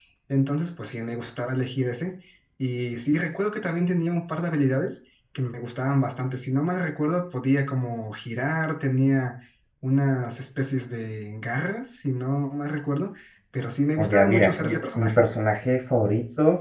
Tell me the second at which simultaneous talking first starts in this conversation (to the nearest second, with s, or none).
14 s